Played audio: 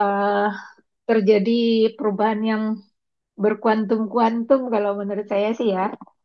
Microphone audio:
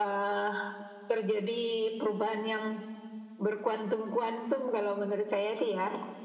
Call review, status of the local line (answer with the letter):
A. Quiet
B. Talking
A